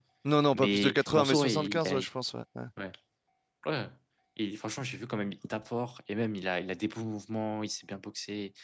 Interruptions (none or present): present